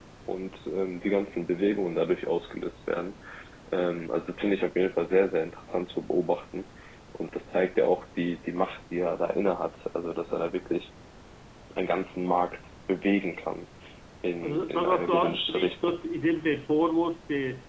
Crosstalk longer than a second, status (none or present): present